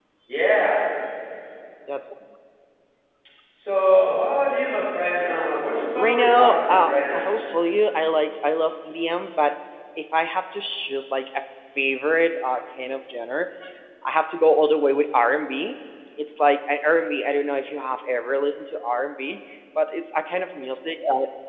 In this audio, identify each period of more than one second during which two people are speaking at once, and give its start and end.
6.0-7.3

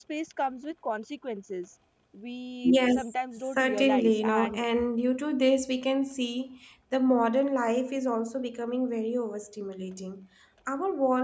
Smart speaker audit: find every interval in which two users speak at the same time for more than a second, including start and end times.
2.6-4.6

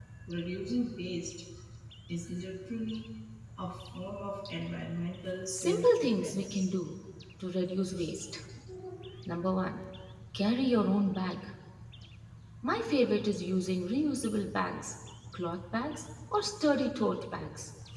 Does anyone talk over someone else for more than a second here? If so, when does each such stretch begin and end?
5.5-6.7

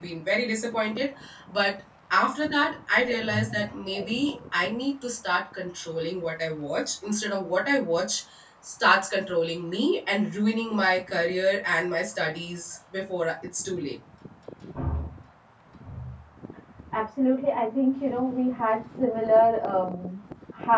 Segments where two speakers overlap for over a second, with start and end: none

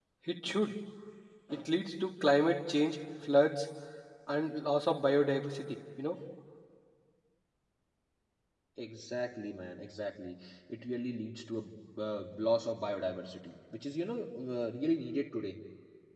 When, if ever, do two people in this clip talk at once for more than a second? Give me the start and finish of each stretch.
none

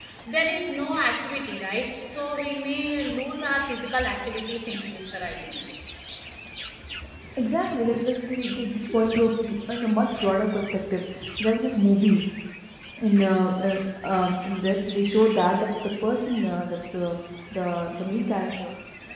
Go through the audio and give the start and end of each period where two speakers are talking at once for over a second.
none

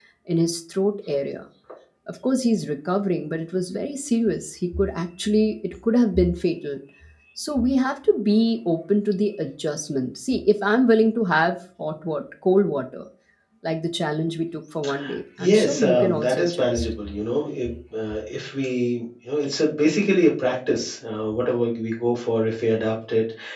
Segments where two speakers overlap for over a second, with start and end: 15.4-16.9

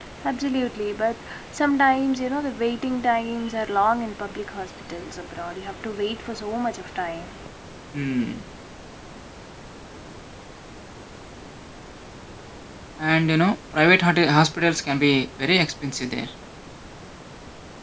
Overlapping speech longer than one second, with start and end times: none

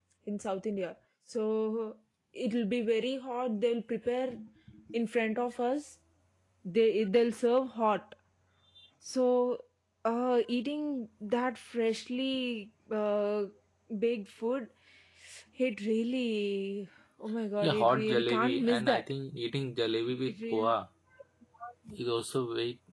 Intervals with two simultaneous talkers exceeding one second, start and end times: 17.6-19.0

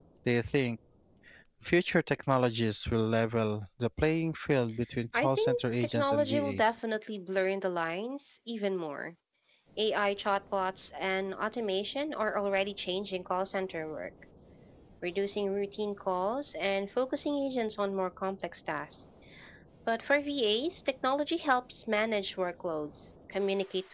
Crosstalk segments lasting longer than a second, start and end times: 5.1-6.8

